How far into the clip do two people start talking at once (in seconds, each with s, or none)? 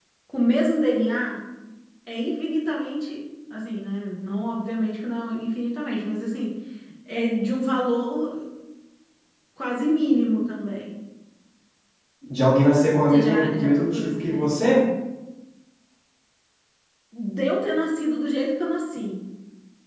13.1 s